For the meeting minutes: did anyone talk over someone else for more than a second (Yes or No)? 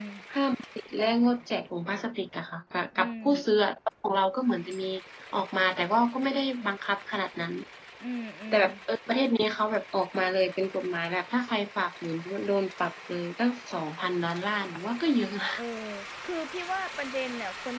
No